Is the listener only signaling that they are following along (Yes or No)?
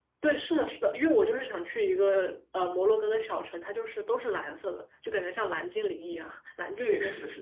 No